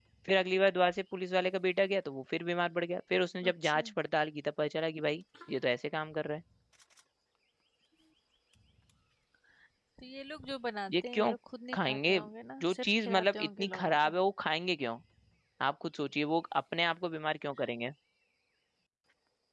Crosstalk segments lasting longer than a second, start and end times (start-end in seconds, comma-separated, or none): 12.6-14.1